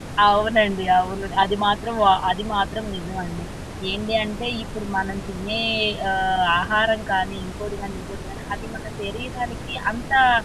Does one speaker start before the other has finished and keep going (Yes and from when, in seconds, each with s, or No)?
No